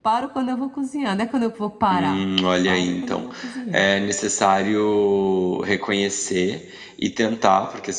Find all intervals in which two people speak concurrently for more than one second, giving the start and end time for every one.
1.9-3.3

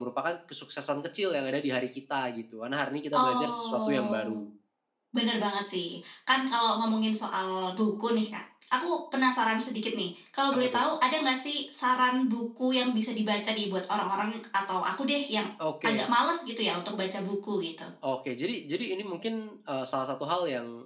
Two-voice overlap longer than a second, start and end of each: 3.1-4.4

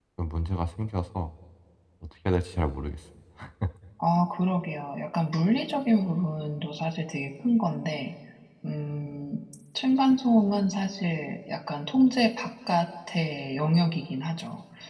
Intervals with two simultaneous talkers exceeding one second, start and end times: none

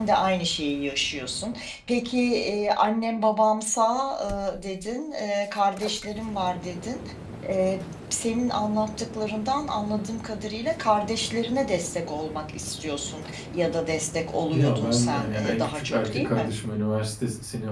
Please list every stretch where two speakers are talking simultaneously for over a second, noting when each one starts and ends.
14.5-16.5

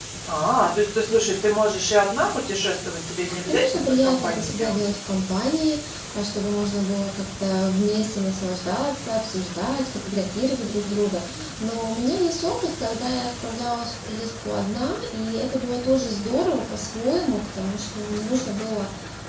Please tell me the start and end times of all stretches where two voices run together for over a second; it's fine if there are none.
3.5-4.9

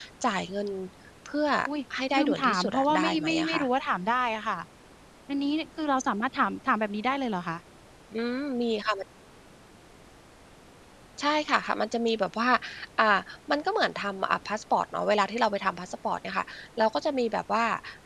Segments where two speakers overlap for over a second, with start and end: 2.2-3.6

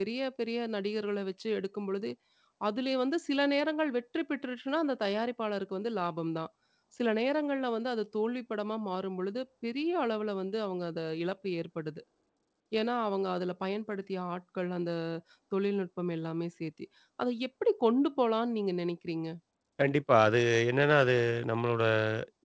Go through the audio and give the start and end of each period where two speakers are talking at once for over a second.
none

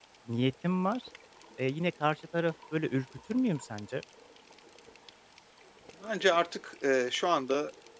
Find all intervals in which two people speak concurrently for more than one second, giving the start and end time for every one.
none

